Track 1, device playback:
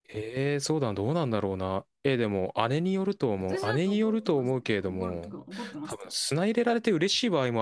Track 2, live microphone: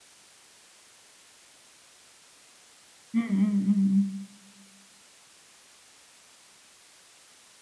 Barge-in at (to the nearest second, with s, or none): 3 s